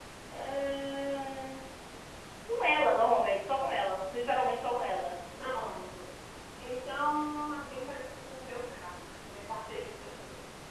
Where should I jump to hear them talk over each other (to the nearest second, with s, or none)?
none